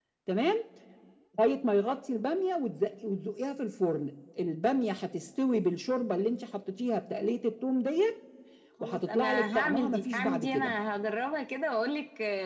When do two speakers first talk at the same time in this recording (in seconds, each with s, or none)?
8.8 s